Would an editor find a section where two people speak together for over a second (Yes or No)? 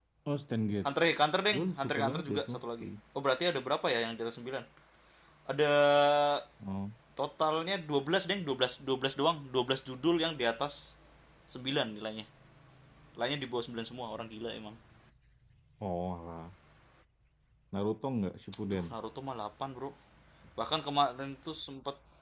Yes